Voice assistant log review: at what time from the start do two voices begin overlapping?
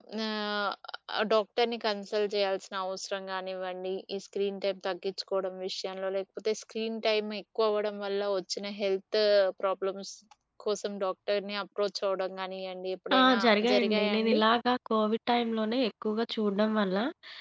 13.1 s

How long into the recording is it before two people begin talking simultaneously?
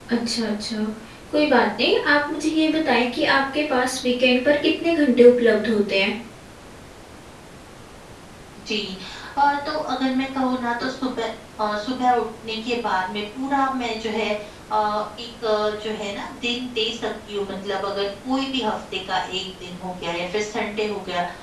none

